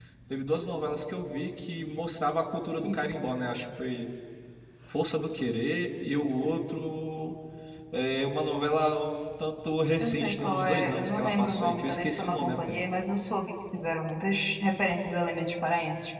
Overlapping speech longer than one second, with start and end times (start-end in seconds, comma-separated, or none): 10.0-12.8